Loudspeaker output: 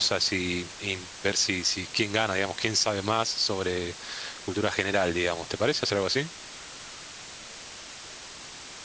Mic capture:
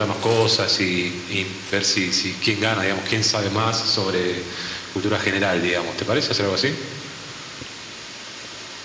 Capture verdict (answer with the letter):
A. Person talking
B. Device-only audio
B